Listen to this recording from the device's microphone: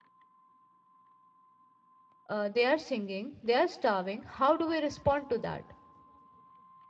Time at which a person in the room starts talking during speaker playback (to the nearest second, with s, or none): 2 s